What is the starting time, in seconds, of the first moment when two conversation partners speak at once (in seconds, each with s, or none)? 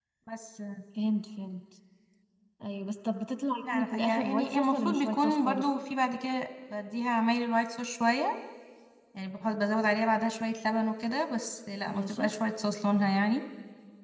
3.6 s